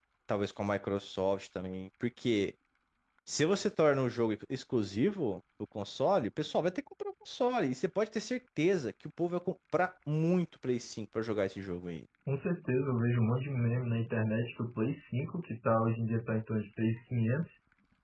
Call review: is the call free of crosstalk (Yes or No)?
Yes